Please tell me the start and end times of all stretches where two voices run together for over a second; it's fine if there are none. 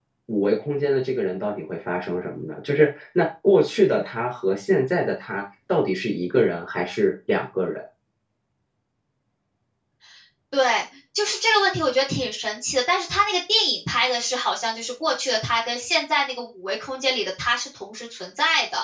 none

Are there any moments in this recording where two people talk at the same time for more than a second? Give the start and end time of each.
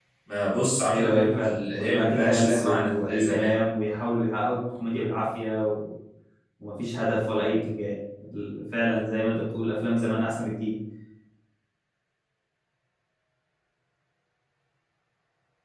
0.9-3.6

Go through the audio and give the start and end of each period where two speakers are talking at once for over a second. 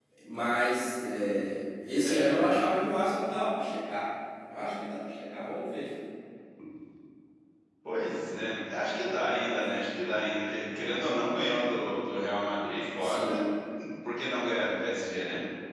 none

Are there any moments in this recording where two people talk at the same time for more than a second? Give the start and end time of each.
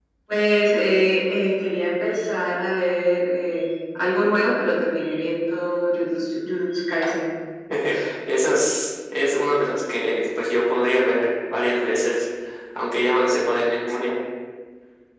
none

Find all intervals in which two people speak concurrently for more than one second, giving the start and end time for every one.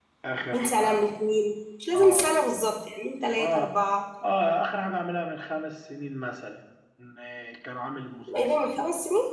none

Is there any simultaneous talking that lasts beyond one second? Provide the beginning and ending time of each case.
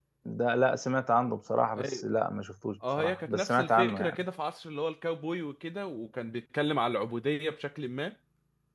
3.0-4.2

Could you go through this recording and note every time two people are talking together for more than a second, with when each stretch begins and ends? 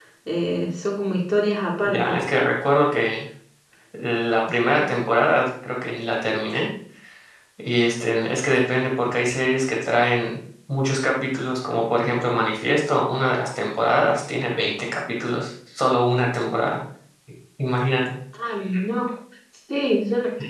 none

